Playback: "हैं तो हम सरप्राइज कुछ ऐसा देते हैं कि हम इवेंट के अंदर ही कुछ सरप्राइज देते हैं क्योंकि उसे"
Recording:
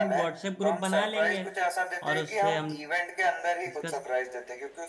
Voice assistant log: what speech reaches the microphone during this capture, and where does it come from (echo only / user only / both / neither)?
both